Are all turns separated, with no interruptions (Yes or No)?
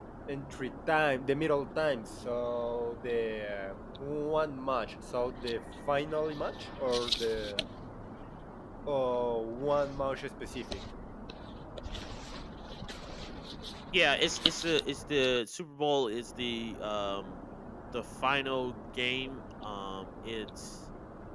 Yes